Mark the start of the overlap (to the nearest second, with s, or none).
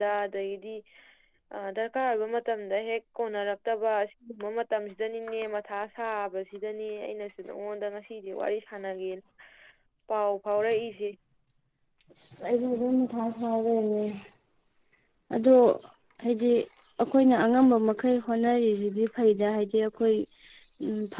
none